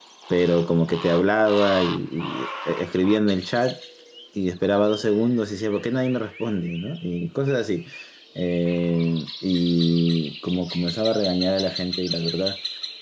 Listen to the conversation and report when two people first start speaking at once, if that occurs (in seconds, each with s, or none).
none